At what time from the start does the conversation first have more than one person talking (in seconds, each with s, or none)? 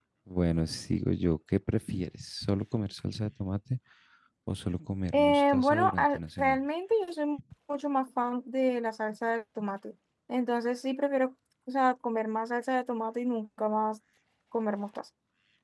5.1 s